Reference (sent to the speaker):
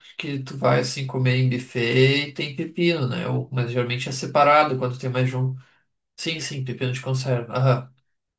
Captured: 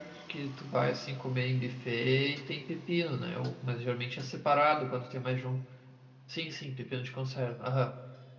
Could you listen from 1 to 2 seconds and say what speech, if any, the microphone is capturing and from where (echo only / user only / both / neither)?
echo only